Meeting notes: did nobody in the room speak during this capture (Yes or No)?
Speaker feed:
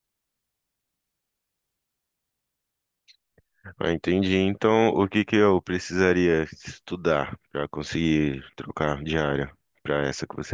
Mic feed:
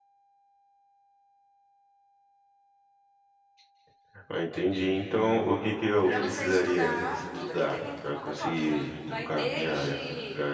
No